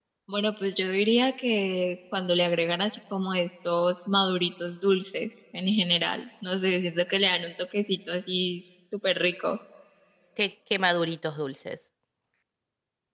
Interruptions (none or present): none